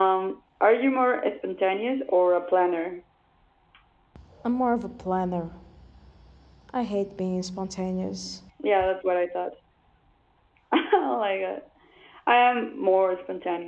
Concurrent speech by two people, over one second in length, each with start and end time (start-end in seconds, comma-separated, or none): none